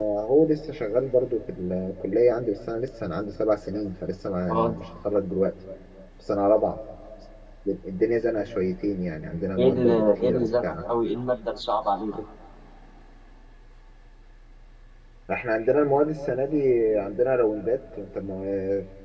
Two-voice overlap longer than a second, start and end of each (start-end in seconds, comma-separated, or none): 9.6-10.8